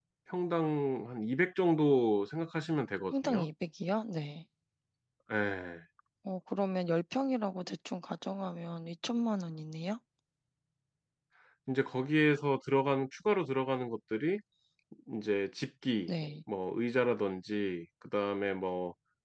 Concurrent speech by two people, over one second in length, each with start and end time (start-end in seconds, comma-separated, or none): none